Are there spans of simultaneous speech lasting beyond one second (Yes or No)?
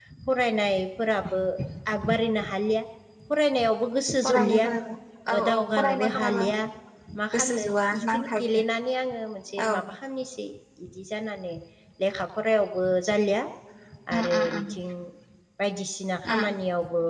Yes